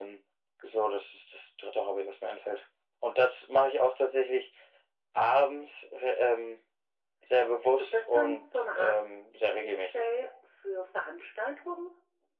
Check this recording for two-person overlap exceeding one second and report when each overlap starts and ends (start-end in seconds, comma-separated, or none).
7.8-9.0